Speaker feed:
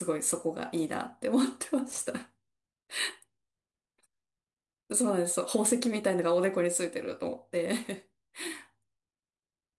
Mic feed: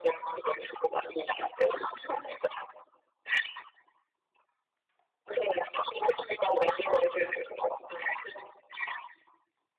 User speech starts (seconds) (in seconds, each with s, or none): none